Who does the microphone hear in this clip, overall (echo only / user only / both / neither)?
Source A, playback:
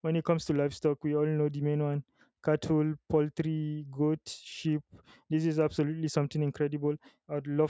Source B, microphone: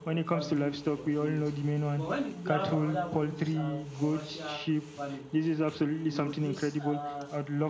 both